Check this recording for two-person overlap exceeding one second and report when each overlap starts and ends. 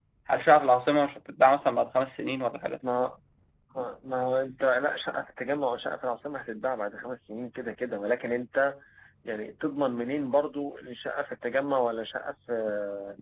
none

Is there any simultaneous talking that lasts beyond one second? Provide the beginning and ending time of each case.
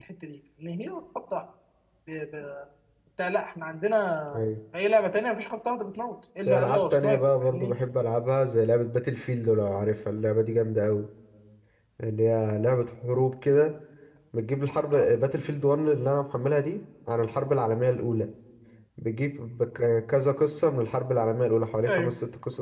6.5-7.8

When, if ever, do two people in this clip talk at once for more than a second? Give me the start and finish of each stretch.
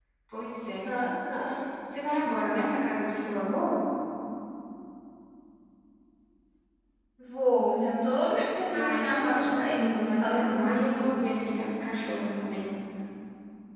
8.7-11.2

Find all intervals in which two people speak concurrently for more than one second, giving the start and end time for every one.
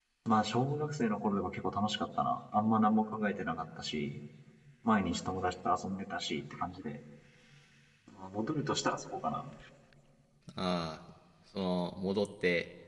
none

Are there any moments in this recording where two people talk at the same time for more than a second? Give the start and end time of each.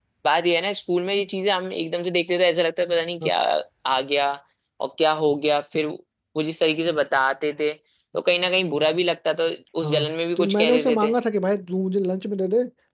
9.8-11.1

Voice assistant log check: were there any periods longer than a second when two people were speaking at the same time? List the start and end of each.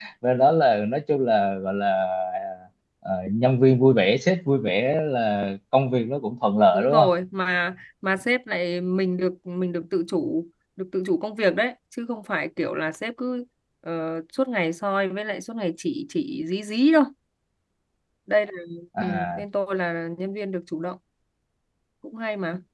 none

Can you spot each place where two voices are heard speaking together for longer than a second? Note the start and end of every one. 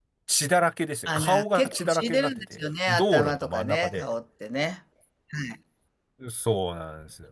1.1-4.1

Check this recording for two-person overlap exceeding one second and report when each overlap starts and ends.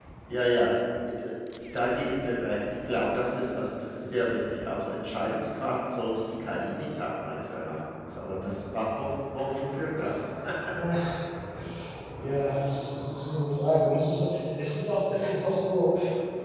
none

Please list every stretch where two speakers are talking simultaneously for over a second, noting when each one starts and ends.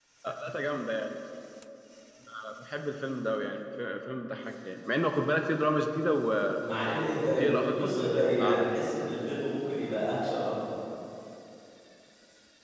7.4-8.7

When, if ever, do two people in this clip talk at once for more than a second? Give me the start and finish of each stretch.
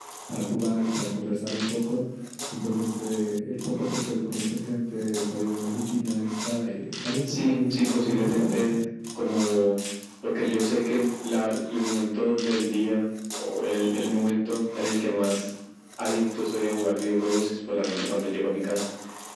7.3-8.8

